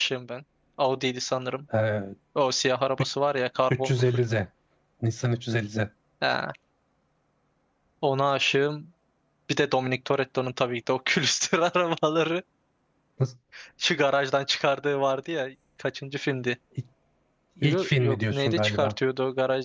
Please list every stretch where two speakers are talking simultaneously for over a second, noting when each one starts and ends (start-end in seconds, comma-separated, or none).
17.6-18.9